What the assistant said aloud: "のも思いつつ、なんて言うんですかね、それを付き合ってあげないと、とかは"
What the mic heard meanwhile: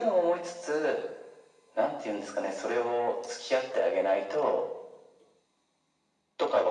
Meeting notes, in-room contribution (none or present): none